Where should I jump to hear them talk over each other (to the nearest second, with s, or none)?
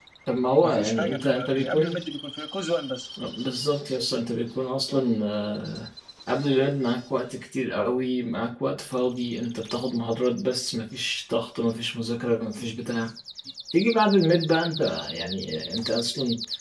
1 s